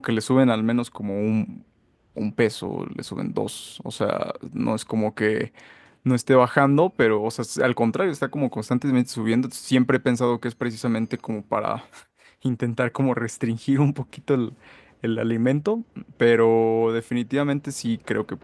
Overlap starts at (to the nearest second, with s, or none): none